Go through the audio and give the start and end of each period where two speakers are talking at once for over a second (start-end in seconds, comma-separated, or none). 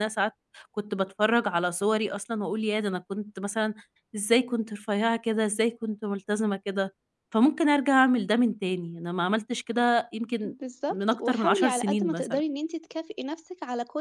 10.9-12.4